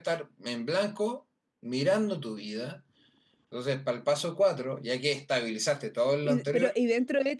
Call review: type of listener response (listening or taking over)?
taking over